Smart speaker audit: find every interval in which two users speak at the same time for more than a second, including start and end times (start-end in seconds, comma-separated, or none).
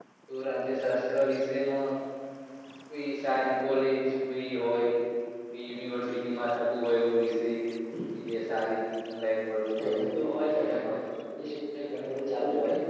9.8-11.2